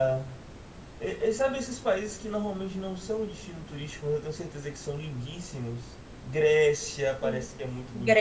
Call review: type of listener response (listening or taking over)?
taking over